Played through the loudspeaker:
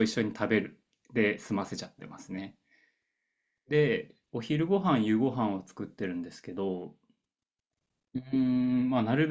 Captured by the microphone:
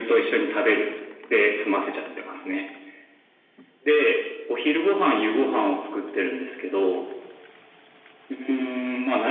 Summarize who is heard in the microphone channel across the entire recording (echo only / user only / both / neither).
echo only